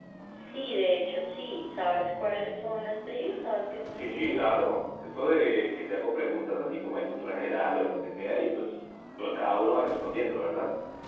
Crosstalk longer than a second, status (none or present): none